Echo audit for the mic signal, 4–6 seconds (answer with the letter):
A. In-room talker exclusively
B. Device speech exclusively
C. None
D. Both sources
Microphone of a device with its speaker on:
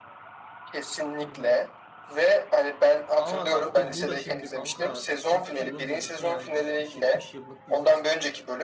D